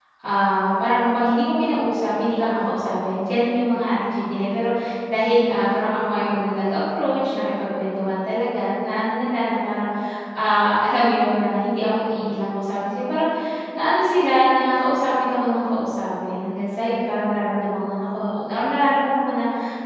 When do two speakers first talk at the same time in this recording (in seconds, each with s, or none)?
none